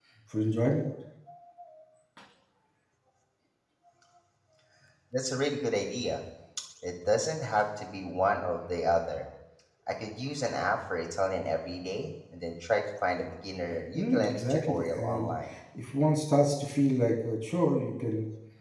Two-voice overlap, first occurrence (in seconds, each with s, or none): 13.9 s